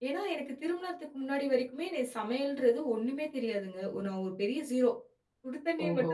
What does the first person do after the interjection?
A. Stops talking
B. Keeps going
B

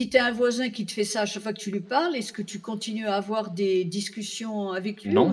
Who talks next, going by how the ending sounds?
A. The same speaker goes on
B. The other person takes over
A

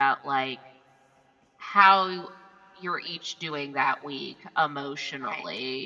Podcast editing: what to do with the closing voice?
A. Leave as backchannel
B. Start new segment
A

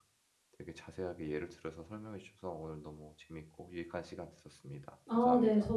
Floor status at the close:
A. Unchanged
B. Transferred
B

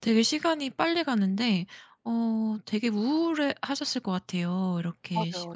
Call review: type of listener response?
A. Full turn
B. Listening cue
A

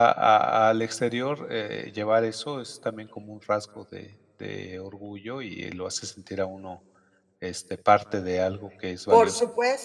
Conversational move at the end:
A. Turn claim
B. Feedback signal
A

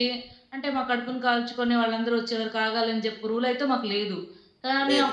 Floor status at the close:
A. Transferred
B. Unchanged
B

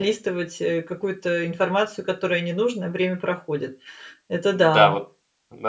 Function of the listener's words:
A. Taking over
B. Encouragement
A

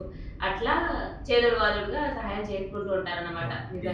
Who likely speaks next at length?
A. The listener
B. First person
A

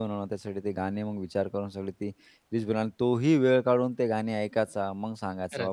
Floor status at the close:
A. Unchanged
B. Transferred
A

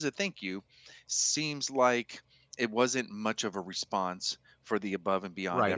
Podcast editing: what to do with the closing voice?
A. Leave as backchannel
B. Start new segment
B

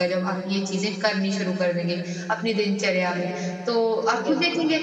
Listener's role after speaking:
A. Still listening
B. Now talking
A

